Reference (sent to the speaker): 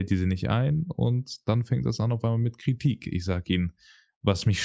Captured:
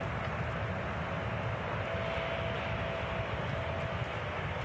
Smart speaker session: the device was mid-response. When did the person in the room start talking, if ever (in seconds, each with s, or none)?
none